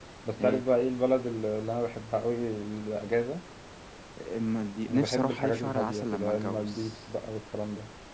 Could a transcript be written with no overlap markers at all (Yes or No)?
No